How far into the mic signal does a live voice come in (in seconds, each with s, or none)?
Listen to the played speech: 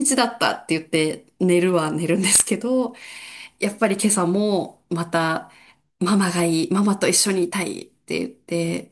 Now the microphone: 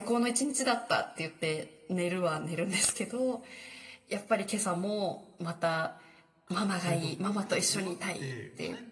6.4 s